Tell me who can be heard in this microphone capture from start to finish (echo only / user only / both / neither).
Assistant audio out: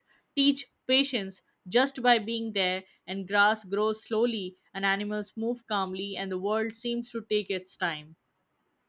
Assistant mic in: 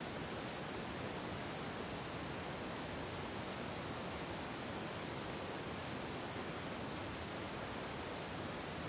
neither